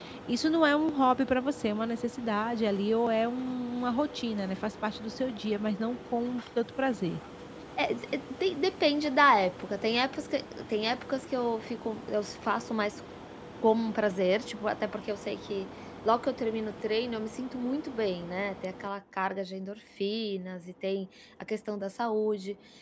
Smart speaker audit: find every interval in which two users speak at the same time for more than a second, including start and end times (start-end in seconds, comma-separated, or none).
none